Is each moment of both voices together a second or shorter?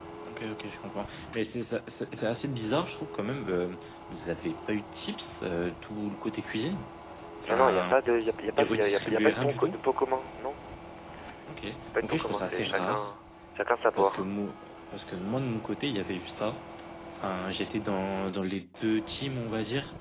No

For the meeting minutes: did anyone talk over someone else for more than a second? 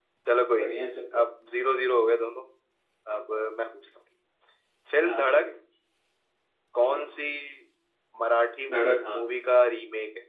No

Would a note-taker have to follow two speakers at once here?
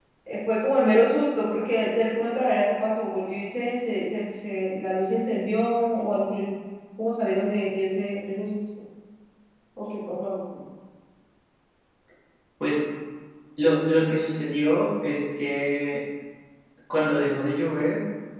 No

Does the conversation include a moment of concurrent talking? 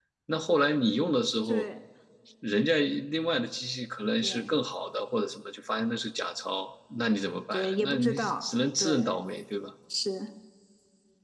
Yes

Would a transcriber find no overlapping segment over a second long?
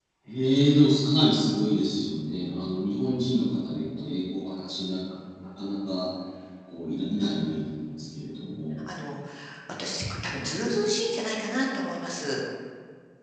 Yes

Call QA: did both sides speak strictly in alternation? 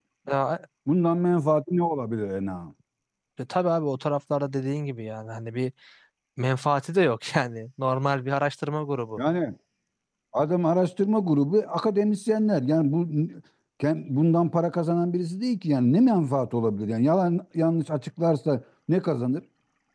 Yes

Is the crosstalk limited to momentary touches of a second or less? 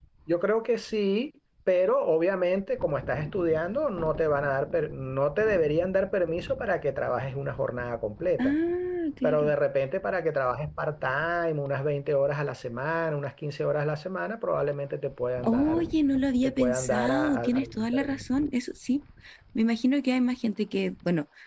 No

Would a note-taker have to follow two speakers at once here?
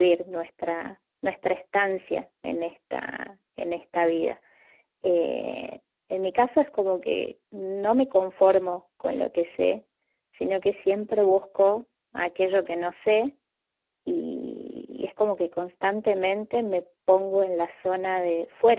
No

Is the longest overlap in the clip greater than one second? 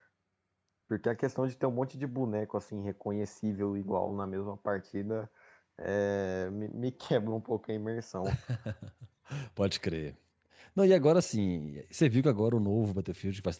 No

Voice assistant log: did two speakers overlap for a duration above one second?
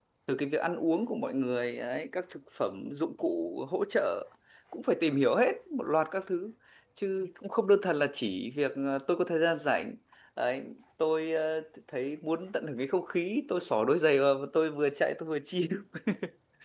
No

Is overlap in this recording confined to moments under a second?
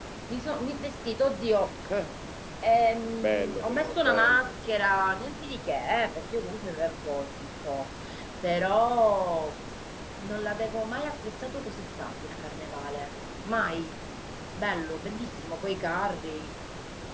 No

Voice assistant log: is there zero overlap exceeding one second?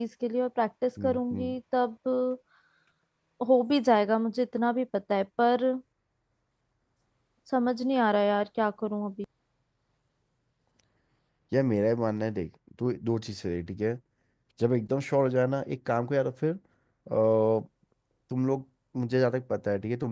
Yes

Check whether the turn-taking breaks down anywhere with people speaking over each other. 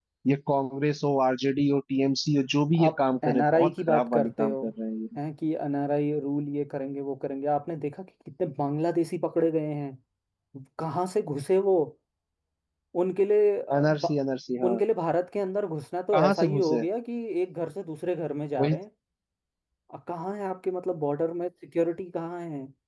Yes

